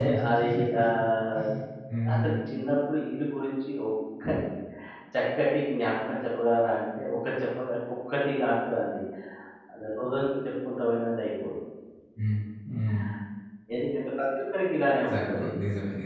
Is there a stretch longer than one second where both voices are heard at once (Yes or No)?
No